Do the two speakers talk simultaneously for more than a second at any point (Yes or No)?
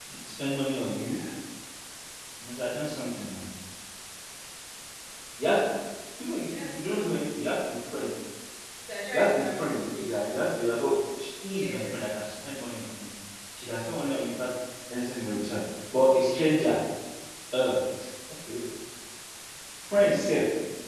Yes